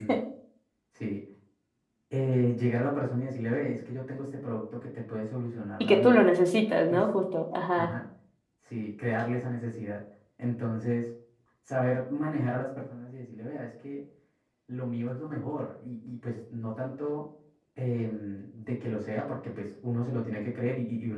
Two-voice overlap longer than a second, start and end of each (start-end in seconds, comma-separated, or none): none